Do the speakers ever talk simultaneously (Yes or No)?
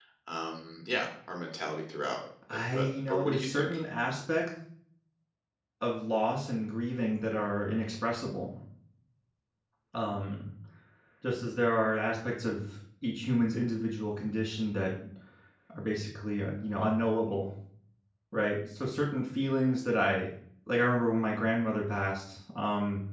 Yes